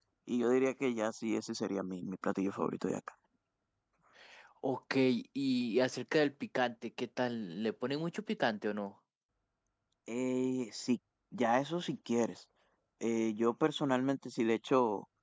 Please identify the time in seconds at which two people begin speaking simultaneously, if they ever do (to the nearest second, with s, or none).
none